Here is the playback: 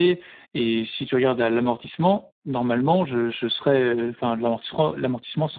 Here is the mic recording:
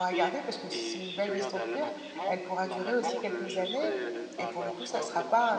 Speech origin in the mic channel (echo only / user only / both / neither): both